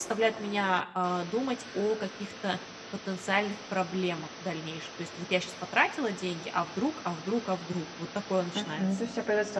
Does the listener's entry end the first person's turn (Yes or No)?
Yes